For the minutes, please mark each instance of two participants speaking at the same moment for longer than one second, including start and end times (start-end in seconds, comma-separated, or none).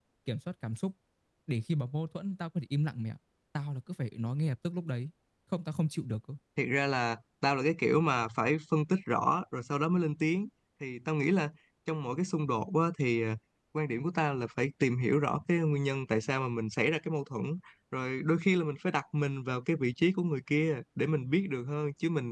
none